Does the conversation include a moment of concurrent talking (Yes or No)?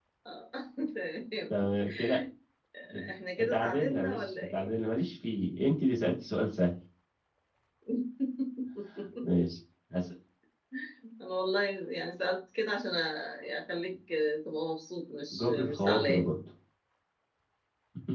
Yes